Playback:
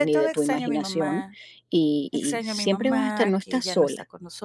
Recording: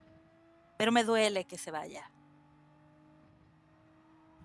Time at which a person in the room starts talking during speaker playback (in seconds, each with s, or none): 0.8 s